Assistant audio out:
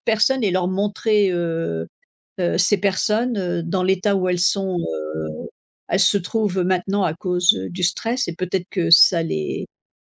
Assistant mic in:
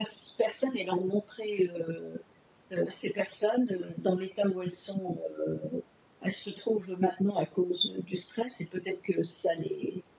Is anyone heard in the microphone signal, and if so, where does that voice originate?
echo only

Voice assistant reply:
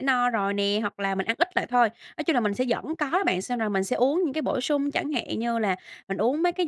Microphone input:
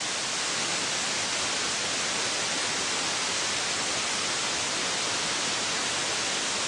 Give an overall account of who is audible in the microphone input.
neither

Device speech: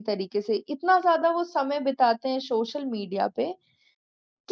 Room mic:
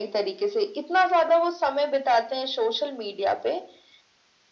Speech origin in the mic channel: echo only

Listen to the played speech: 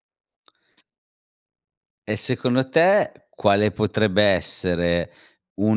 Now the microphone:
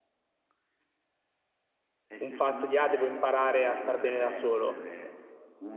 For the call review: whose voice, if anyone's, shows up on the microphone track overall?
both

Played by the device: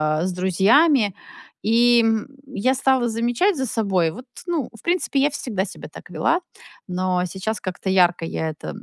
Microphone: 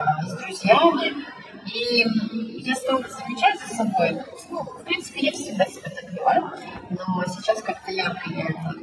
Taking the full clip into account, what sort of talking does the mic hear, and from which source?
echo only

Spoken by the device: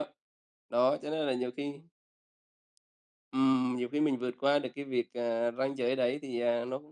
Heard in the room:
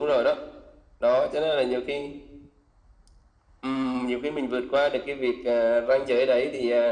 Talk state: echo only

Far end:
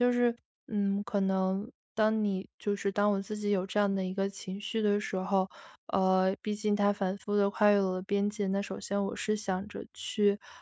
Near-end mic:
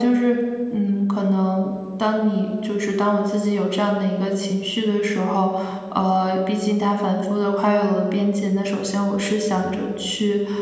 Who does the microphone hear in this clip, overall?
echo only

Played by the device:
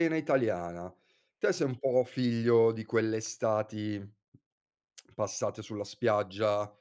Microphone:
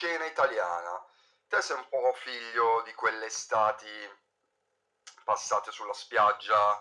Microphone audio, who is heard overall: echo only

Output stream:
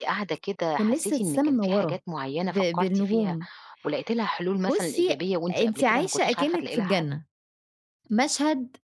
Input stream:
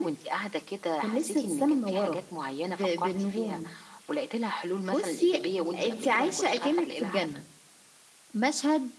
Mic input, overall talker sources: echo only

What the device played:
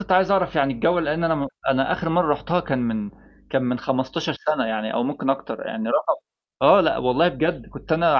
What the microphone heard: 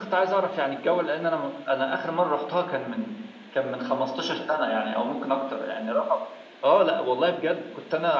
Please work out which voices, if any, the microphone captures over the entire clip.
echo only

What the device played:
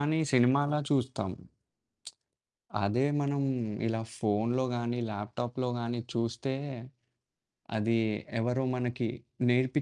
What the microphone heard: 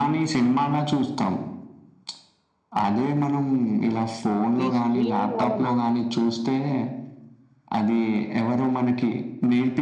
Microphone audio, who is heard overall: both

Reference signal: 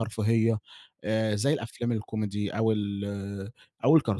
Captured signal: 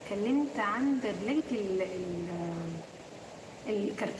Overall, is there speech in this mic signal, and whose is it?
user only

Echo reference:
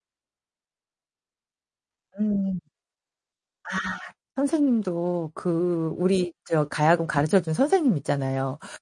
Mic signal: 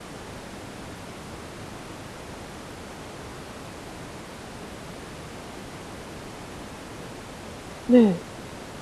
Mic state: user only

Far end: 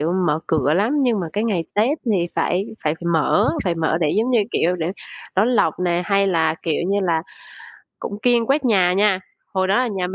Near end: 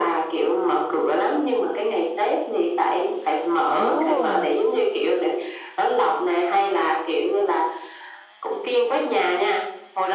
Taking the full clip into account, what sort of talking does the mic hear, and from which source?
both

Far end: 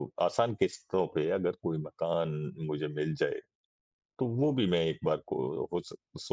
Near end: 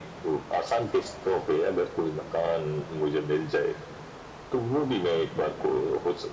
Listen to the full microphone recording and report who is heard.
echo only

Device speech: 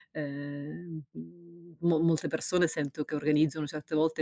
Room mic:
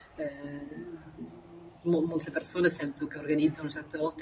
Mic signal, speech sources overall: echo only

